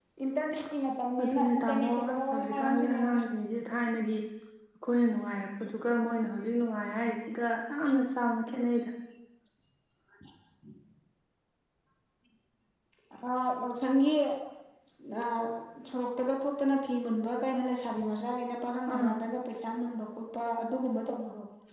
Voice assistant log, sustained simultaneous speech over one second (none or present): present